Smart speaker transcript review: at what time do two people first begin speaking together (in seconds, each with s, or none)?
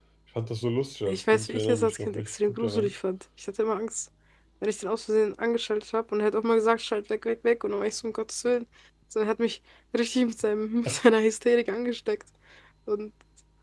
1.1 s